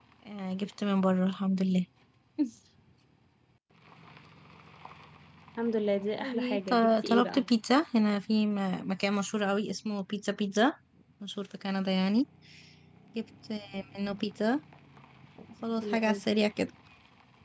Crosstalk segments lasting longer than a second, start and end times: 6.2-7.4

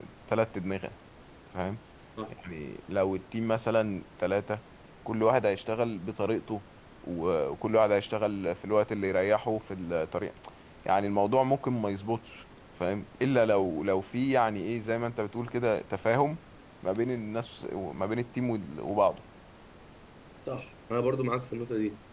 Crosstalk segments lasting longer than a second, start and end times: none

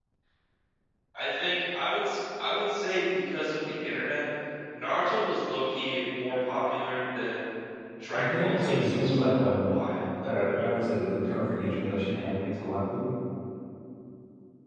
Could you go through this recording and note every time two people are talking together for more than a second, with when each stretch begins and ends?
8.1-9.5

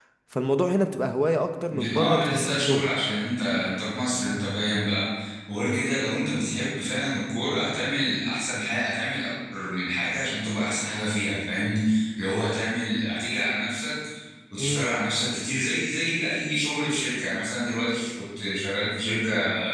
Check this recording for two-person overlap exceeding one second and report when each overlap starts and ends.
1.7-2.9

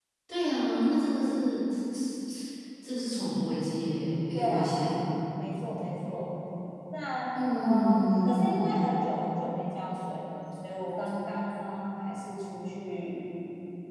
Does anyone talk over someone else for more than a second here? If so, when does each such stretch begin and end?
7.5-8.8

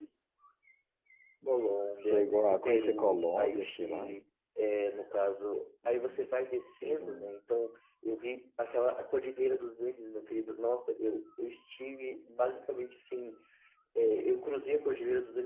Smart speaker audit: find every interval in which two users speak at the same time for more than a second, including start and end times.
2.1-4.1

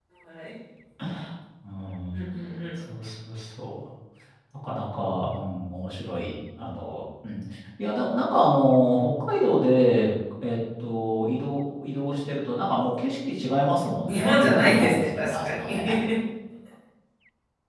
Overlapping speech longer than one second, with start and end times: 14.1-15.8

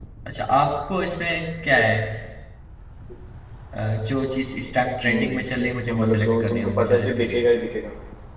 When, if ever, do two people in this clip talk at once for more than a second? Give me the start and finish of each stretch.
5.9-7.4

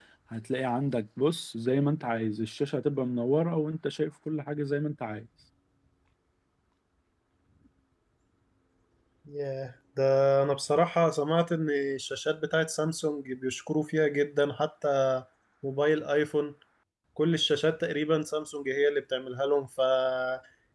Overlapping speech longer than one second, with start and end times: none

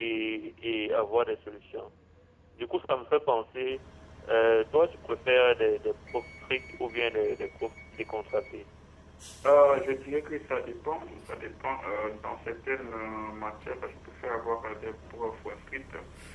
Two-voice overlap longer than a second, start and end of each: none

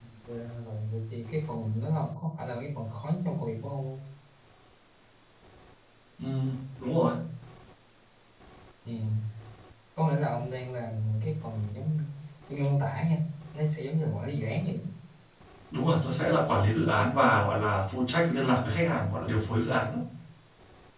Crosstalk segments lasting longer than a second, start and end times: none

